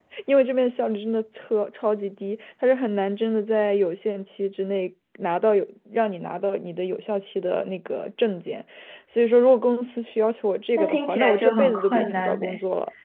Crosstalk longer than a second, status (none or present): present